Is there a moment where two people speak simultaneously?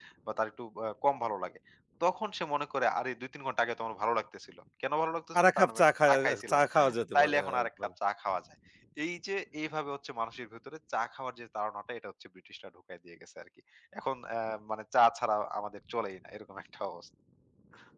Yes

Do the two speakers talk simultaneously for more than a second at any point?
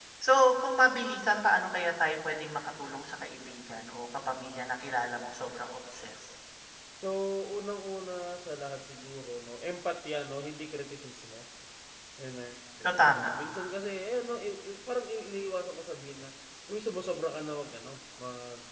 No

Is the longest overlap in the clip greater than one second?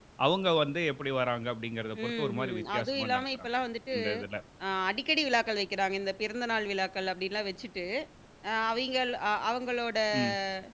Yes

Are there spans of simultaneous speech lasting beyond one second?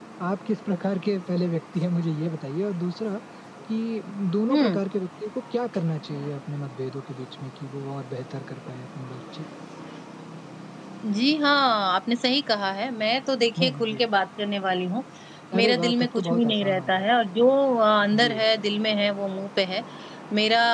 Yes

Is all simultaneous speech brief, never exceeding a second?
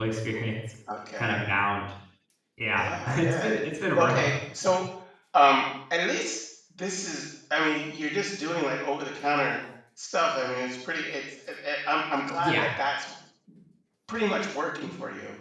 No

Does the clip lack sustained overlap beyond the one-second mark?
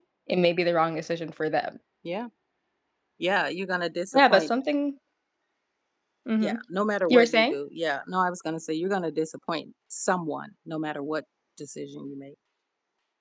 Yes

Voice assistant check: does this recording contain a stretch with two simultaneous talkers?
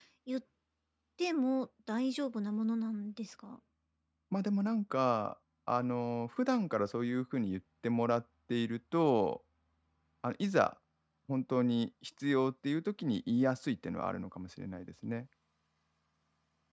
No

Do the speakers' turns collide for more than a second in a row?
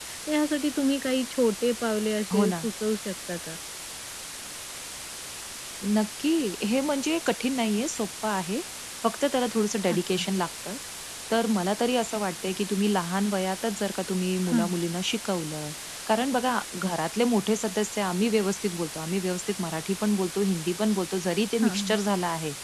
No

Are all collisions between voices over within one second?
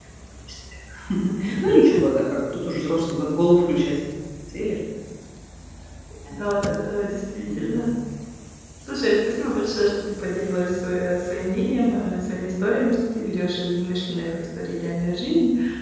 Yes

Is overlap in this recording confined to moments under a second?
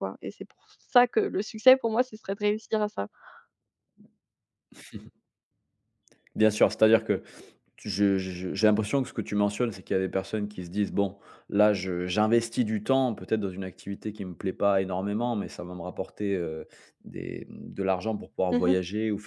Yes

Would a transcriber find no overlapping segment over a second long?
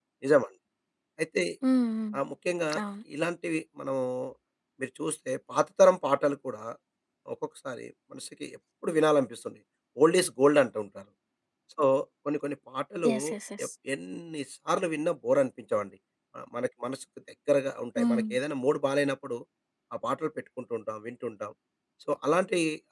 Yes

